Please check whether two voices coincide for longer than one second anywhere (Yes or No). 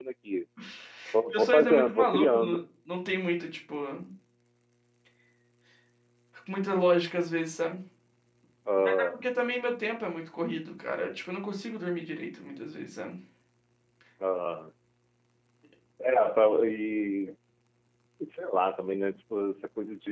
Yes